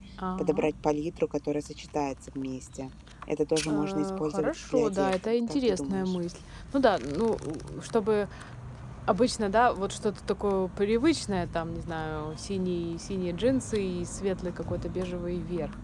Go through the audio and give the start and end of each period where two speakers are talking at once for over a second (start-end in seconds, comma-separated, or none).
3.7-6.2